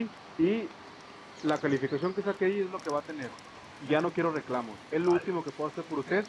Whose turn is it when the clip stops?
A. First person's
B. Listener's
A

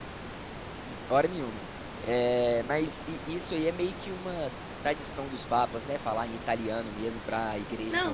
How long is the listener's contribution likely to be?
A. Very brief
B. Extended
B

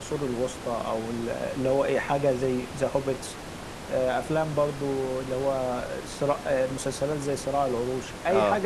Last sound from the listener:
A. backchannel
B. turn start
A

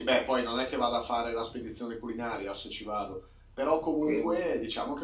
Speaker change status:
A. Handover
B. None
B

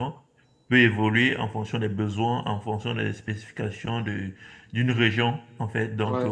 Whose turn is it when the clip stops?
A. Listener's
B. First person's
B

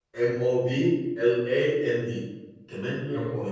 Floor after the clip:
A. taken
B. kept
B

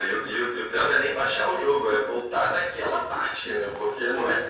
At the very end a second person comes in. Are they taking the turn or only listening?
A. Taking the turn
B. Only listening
A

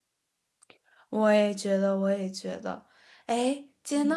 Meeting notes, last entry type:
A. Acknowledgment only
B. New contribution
A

